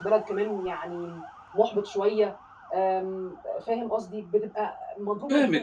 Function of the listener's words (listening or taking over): taking over